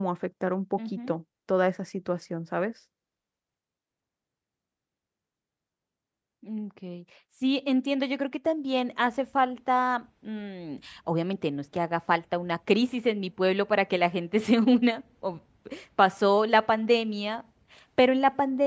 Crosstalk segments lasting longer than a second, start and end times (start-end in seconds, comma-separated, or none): none